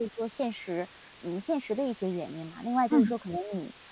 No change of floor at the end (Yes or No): Yes